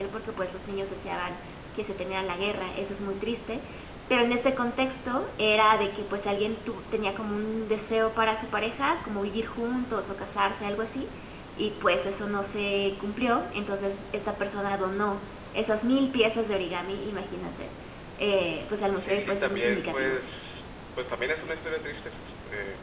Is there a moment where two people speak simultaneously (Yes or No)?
Yes